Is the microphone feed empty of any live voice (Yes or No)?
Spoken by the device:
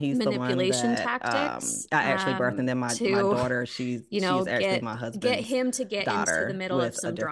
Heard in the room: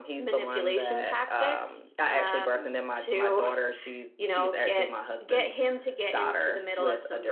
Yes